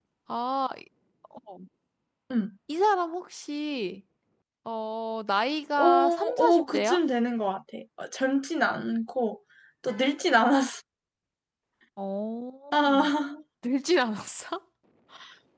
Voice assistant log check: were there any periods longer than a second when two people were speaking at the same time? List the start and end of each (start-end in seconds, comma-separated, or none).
5.8-7.0